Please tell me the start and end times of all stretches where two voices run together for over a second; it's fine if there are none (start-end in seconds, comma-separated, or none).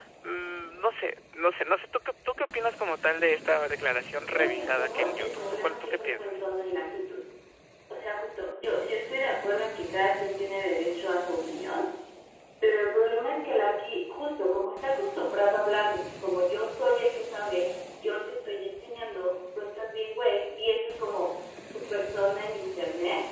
4.2-6.5